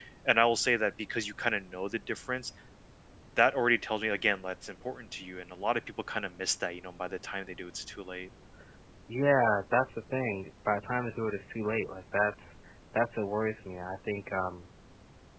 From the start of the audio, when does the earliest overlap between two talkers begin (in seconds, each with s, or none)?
none